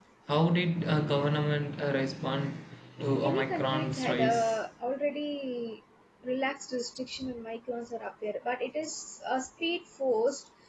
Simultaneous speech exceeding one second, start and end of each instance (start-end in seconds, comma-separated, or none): 3.2-4.7